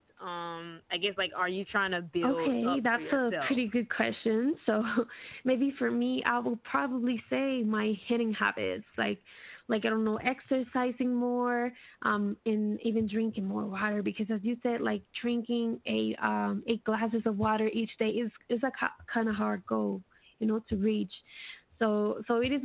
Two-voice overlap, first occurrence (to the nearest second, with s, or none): 2 s